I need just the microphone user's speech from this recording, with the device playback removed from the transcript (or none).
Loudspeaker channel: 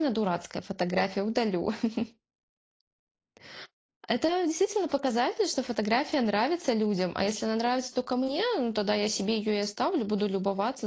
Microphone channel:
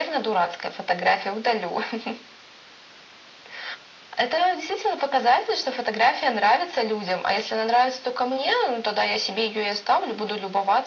none